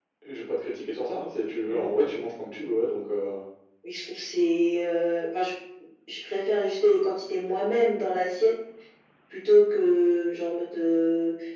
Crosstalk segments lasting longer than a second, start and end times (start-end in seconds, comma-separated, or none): none